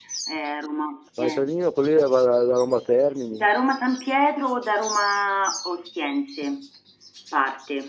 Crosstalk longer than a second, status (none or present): none